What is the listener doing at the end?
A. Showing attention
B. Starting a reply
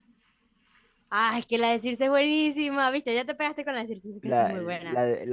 B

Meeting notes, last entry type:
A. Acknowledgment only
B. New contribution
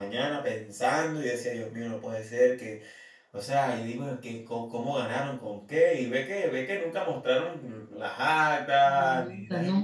B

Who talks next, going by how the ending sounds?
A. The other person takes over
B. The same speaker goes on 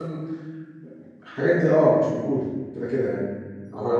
A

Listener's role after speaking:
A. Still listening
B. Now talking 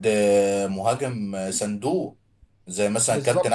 A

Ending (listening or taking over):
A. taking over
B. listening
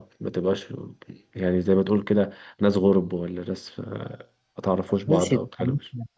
A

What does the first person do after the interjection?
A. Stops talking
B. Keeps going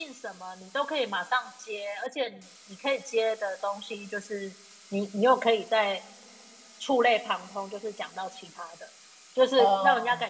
B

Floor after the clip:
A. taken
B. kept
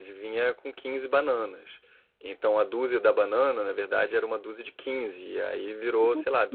B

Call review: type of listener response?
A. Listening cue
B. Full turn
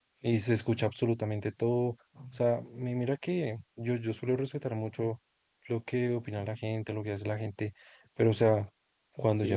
B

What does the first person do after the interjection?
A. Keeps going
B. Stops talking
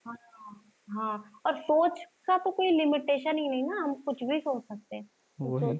A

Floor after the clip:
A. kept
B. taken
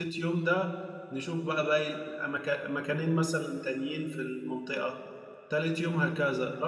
A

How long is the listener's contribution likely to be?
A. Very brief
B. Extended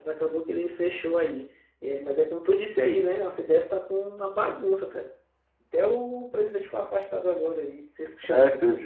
B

